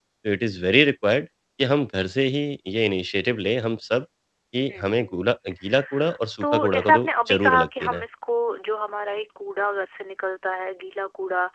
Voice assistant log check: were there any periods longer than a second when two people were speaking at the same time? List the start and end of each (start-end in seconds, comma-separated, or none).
6.4-8.1